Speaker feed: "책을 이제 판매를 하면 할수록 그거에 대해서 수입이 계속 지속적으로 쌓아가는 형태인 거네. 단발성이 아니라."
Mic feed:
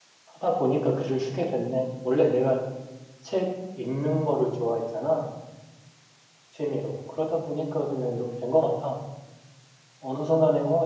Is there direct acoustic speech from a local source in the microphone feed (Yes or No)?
Yes